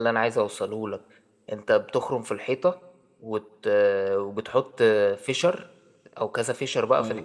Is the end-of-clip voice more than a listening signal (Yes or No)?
Yes